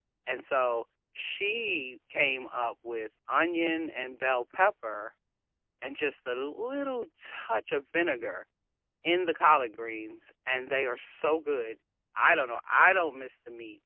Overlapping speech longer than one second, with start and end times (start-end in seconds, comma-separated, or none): none